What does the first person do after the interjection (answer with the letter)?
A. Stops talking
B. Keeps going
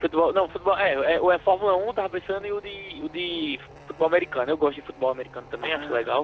A